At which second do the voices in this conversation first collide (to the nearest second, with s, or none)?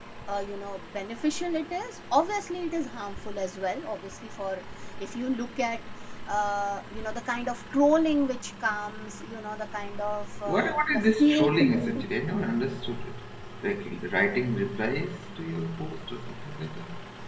10 s